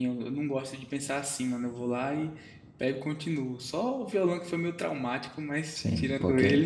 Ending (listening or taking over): taking over